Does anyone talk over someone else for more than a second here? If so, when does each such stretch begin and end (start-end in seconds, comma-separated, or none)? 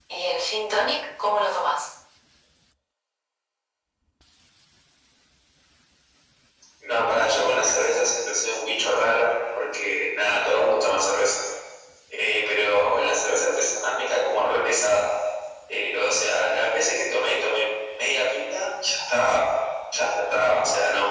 none